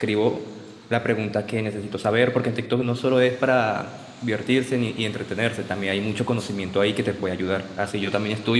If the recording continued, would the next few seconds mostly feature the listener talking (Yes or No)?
No